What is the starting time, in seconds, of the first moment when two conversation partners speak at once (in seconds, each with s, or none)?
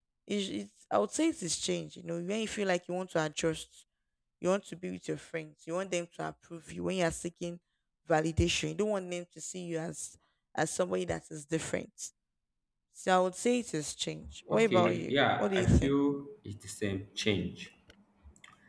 14.6 s